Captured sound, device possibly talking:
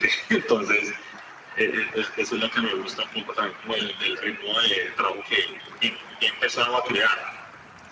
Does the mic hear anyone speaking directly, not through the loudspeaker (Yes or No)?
No